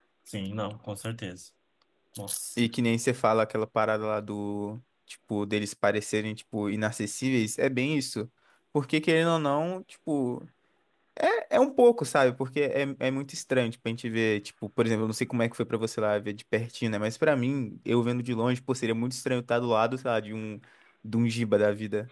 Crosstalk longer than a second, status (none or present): none